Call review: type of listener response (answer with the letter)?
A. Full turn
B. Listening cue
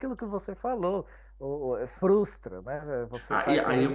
A